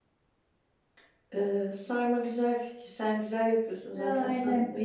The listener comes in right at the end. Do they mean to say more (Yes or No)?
No